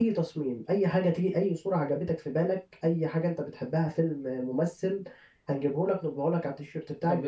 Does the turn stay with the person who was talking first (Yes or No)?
No